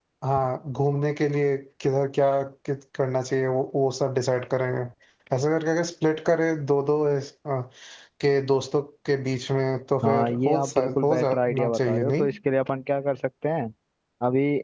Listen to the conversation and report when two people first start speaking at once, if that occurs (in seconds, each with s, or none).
10.0 s